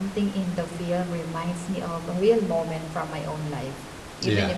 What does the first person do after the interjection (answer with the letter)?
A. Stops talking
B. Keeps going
B